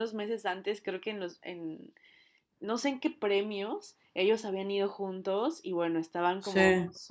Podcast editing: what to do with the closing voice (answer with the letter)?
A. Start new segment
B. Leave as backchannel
B